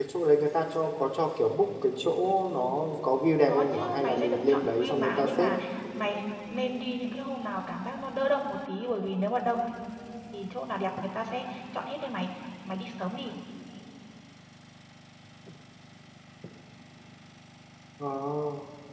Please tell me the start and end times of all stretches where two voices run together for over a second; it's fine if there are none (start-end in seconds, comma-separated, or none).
3.5-5.5